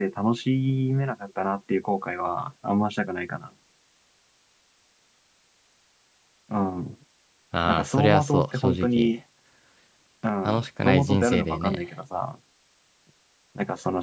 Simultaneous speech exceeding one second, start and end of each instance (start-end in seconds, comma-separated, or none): 7.7-9.1, 10.4-11.8